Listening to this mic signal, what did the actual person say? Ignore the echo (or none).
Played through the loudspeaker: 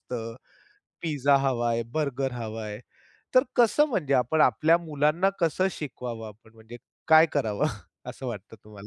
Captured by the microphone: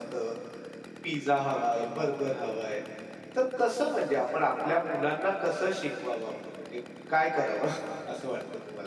none